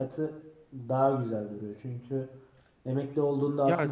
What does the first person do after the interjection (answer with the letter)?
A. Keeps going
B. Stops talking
B